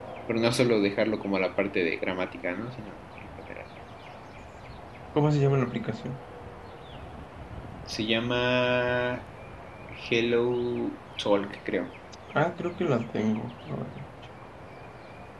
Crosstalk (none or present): none